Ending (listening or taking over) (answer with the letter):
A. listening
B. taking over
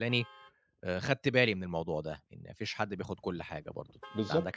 B